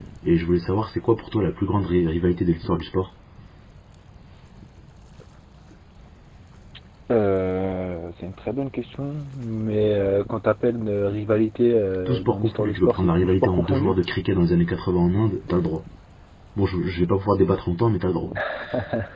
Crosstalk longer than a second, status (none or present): present